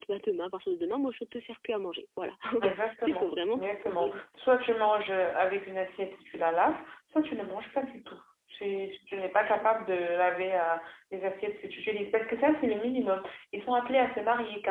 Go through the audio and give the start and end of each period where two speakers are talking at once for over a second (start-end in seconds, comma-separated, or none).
2.6-4.2